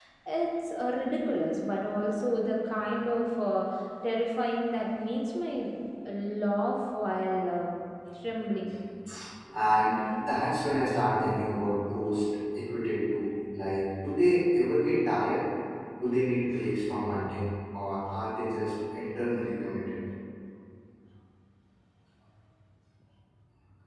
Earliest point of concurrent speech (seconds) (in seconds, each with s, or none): none